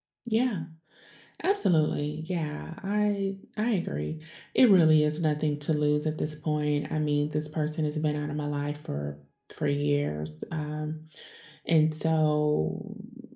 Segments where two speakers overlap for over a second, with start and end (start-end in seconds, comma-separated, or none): none